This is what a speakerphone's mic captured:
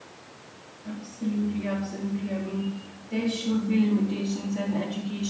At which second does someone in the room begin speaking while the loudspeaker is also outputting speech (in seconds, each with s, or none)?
0.8 s